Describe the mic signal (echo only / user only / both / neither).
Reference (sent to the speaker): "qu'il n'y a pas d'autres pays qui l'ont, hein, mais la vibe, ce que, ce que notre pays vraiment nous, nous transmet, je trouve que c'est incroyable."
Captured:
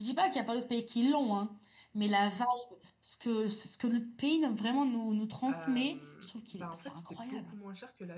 both